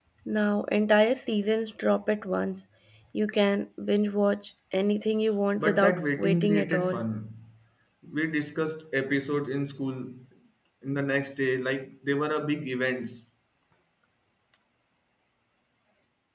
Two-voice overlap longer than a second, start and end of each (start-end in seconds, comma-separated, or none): 5.6-7.0